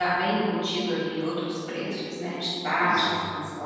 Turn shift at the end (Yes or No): Yes